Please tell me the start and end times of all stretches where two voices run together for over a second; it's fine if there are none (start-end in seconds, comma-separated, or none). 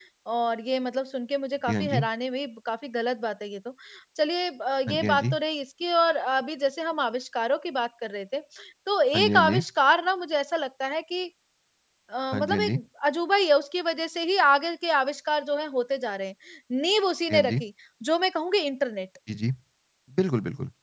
none